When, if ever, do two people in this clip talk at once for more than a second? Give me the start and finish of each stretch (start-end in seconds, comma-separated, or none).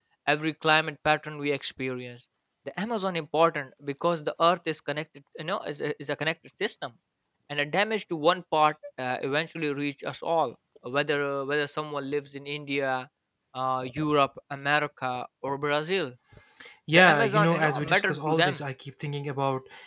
16.9-18.6